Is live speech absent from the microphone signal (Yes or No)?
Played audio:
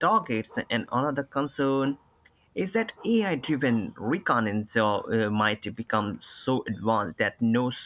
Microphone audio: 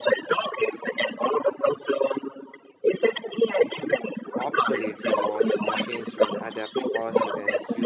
No